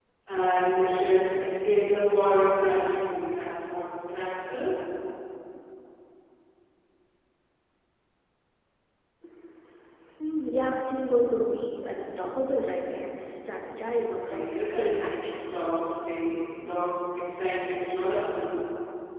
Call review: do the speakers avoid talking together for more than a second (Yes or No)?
No